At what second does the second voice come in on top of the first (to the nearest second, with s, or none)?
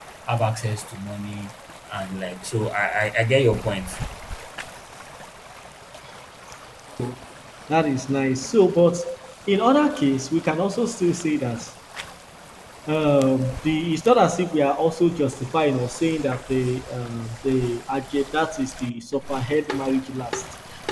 none